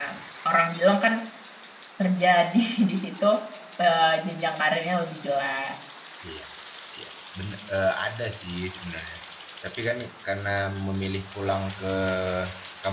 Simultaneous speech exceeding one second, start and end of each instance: none

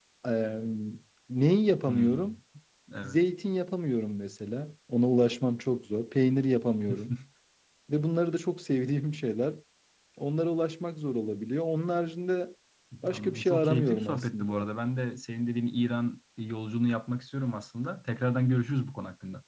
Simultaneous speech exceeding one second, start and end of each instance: 13.1-14.7

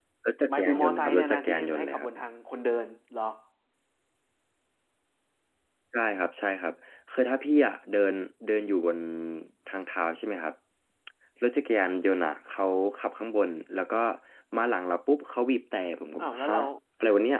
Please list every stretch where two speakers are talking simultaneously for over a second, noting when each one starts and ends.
0.5-2.1

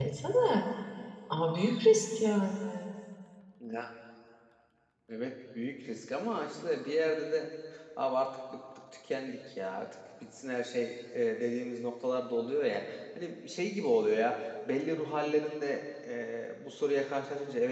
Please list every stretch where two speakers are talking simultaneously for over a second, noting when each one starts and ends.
none

